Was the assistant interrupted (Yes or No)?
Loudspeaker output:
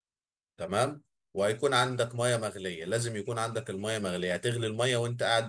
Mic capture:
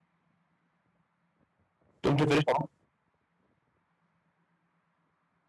Yes